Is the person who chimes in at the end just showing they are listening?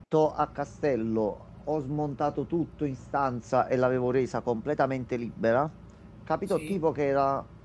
Yes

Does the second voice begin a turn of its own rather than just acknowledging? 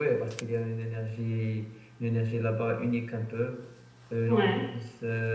No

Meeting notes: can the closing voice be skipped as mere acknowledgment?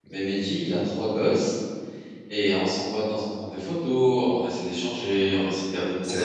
No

